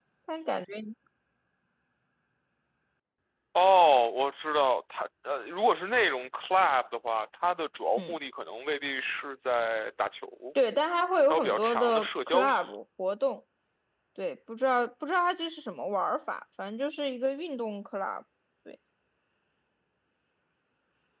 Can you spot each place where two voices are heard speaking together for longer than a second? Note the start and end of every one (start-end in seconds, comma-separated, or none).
11.3-12.7